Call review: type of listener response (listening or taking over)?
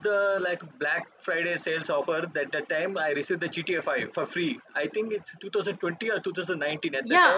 taking over